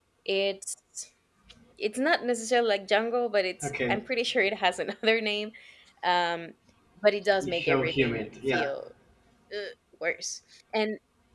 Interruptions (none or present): present